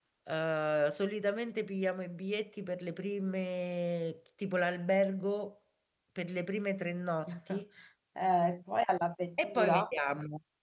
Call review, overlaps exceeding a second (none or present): none